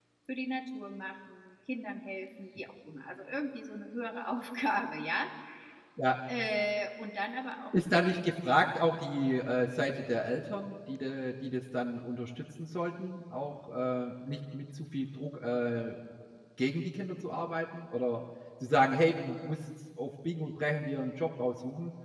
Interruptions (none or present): none